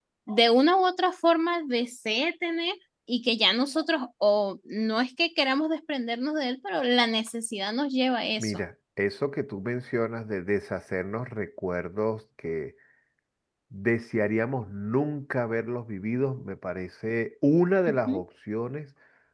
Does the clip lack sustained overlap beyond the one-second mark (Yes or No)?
Yes